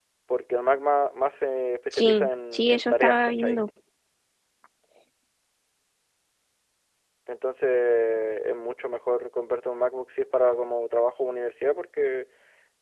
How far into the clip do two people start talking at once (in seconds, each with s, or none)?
1.9 s